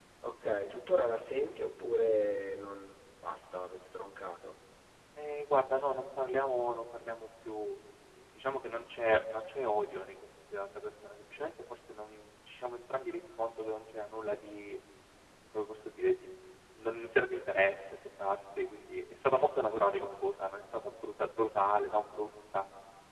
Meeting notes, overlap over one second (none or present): none